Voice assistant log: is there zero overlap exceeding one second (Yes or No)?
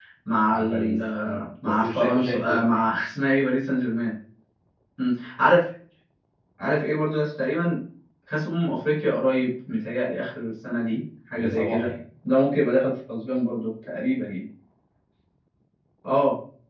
No